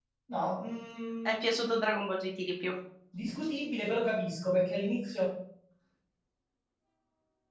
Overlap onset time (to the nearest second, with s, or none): none